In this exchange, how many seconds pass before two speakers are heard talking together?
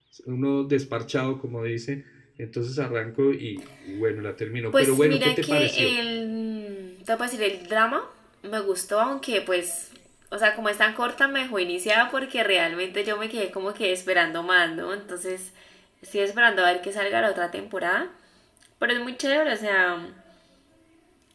4.7 s

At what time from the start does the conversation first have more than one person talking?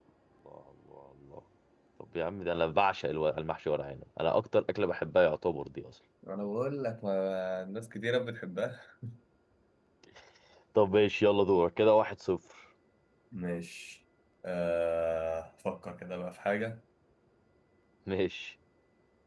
none

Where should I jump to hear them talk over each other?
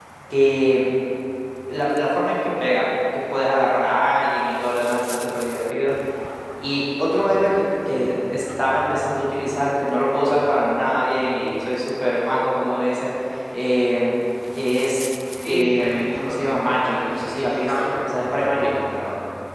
15.4 s

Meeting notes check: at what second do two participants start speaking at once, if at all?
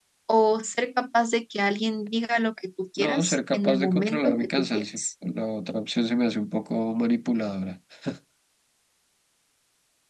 3.0 s

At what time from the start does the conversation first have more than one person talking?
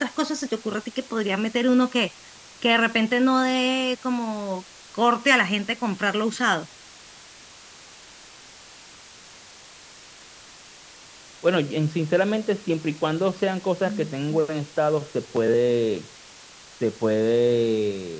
none

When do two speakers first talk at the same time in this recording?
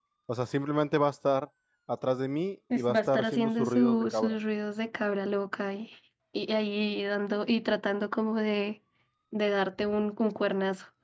2.8 s

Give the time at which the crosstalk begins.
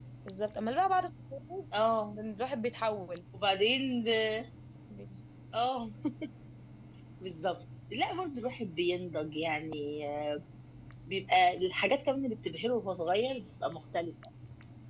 none

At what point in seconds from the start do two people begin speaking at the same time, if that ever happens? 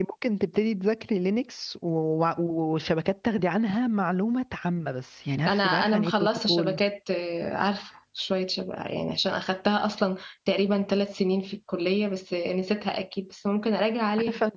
5.5 s

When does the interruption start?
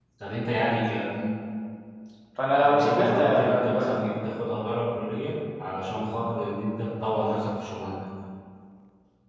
2.6 s

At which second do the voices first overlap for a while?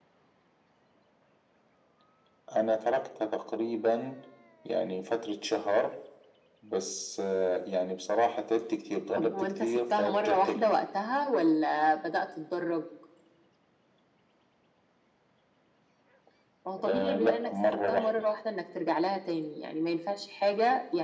9.2 s

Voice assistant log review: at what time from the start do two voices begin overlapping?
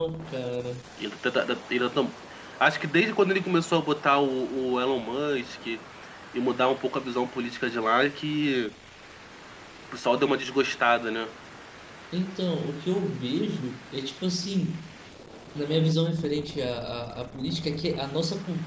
none

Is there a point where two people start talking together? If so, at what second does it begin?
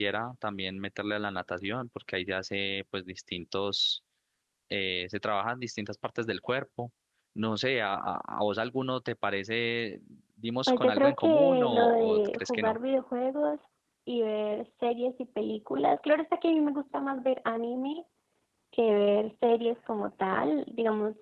10.7 s

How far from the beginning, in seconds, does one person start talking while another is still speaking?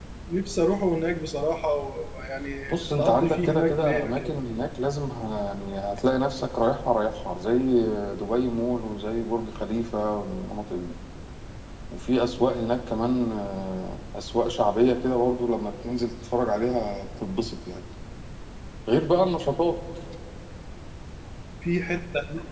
3.0 s

